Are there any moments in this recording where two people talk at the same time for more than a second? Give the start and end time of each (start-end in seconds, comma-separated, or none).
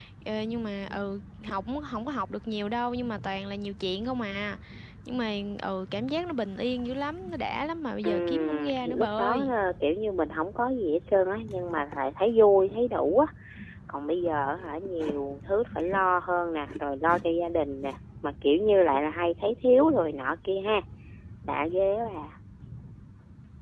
8.0-9.5